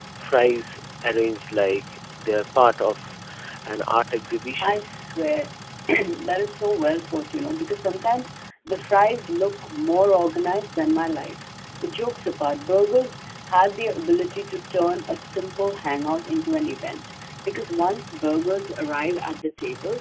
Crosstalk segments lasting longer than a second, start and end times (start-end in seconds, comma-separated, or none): none